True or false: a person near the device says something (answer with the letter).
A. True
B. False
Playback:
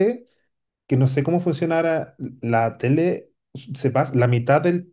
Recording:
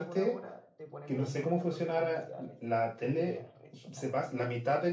A